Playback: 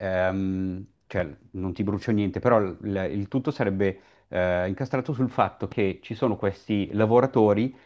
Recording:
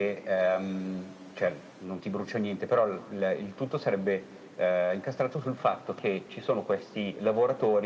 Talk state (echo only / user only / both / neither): echo only